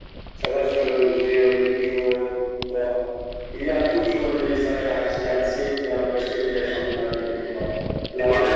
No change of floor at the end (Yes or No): No